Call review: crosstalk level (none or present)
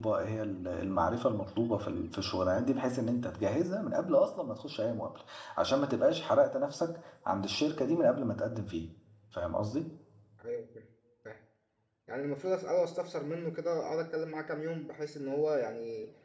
none